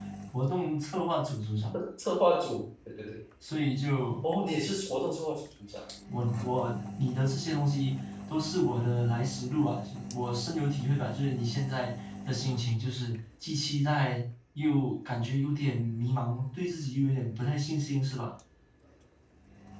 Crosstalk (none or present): none